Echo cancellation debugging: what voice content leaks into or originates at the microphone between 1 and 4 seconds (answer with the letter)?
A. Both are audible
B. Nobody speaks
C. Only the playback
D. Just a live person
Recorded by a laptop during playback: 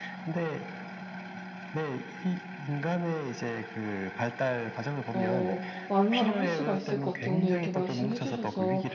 C